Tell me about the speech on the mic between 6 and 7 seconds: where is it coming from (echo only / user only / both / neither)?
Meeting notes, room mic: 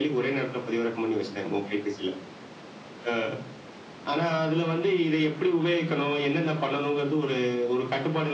echo only